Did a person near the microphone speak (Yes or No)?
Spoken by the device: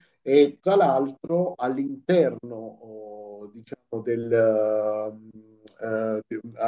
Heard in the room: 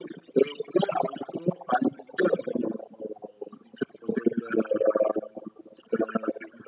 No